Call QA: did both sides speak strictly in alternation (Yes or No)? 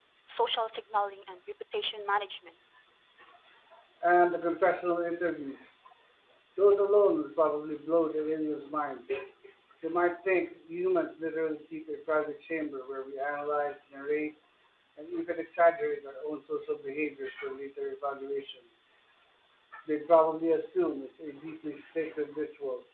Yes